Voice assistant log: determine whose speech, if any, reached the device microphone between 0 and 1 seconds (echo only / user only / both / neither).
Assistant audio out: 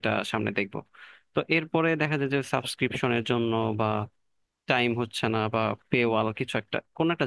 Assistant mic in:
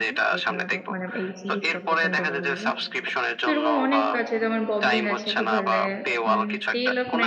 both